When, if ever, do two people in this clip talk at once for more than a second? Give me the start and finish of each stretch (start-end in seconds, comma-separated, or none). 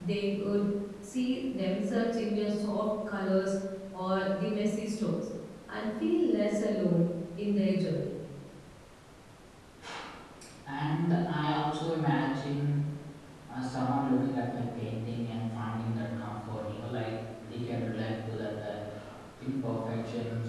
none